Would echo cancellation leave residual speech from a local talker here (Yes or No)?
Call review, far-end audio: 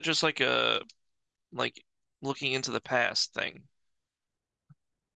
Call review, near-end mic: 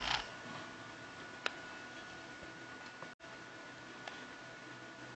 No